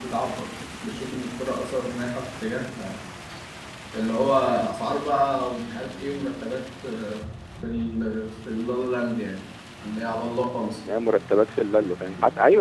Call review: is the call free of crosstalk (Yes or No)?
Yes